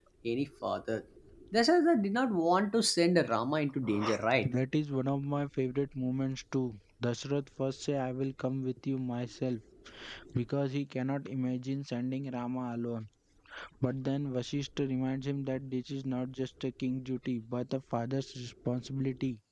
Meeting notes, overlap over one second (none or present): none